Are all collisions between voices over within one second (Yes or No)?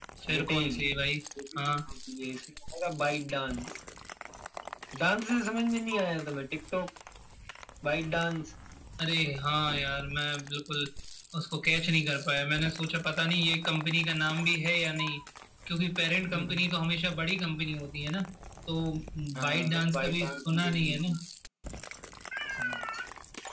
No